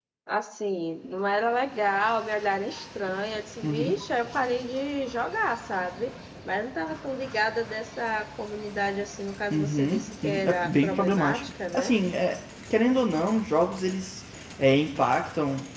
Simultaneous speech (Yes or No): Yes